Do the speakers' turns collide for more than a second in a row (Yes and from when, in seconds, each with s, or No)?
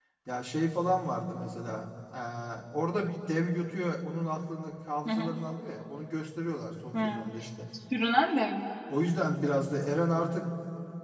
No